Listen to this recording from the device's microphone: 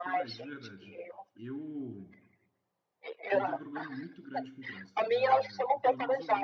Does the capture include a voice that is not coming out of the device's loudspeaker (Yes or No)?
Yes